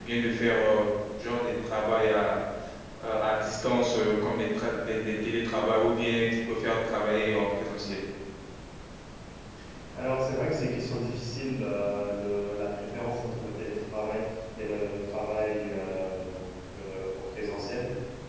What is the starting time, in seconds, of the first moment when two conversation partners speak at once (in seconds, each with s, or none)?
none